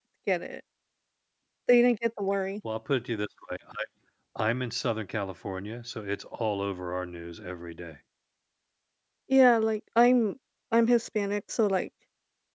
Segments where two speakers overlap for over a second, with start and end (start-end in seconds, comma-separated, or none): none